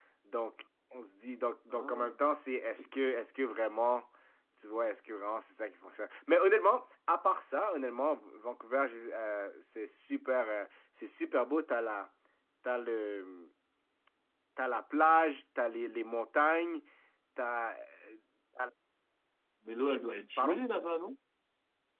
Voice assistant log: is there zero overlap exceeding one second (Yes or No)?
Yes